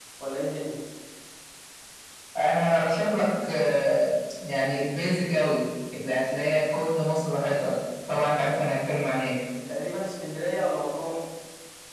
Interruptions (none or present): none